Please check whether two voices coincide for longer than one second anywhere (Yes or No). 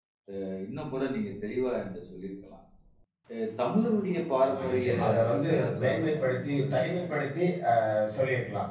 Yes